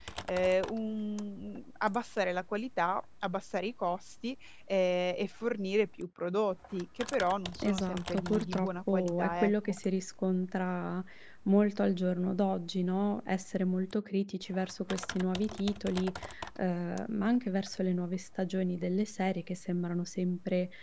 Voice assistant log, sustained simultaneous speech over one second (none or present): present